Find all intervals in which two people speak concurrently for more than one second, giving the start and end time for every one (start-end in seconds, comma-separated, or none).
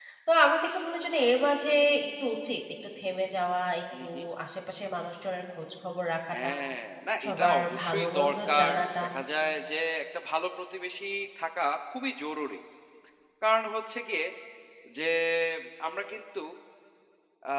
7.2-9.0